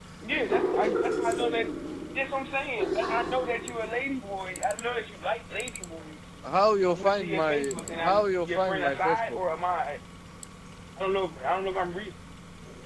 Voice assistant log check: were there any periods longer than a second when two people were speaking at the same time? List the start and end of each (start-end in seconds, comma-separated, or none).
6.9-9.2